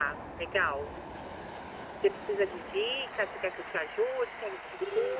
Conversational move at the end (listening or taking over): taking over